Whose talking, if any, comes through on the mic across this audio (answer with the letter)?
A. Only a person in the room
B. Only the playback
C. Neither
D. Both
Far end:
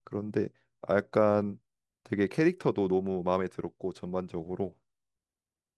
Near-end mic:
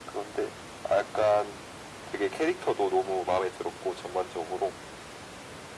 B